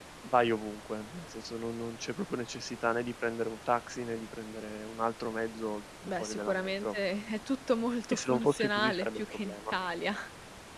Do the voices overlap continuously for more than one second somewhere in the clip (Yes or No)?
Yes